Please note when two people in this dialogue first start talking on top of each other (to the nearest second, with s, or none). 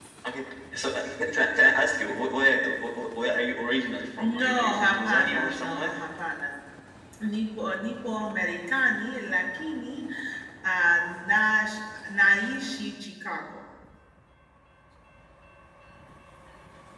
4 s